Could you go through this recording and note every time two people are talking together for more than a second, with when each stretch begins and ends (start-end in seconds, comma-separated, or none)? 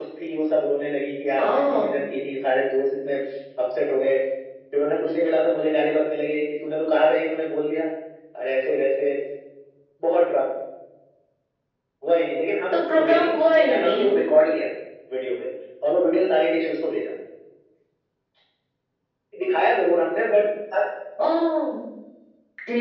12.7-14.1